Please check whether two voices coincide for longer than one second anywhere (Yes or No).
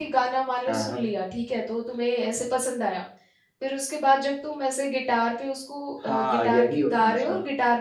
Yes